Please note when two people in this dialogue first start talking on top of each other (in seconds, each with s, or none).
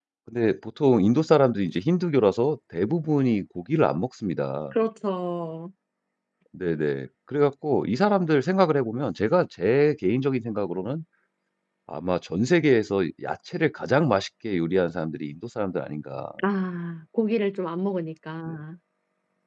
none